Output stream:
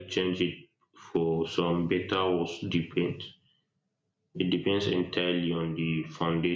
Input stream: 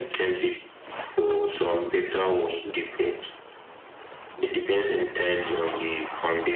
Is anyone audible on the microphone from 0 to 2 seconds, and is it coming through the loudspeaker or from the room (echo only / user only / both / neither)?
echo only